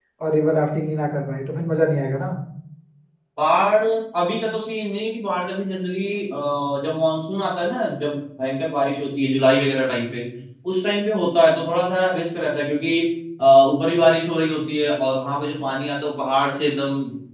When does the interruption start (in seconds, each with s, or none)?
none